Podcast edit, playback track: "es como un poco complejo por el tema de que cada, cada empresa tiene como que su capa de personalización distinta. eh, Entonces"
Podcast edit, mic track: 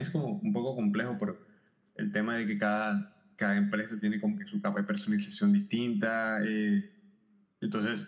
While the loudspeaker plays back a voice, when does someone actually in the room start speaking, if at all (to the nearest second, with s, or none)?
none